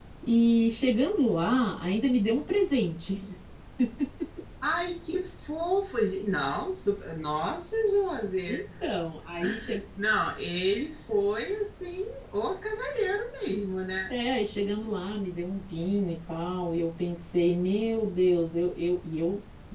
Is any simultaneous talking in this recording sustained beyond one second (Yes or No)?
No